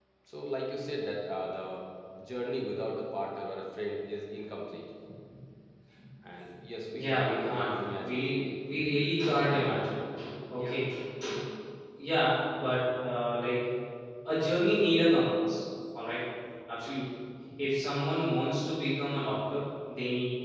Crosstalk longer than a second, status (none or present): present